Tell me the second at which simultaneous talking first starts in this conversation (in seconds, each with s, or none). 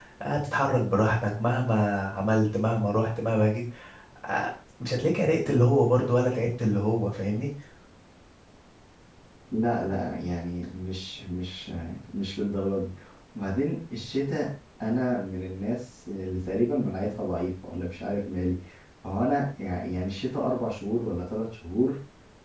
none